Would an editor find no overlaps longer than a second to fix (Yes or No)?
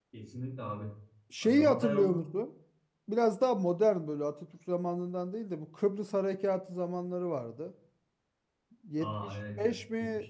No